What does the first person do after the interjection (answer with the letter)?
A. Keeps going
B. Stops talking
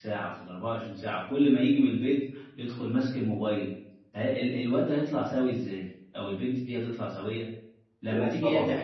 A